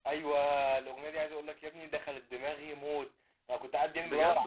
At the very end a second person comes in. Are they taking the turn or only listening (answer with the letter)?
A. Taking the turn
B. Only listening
B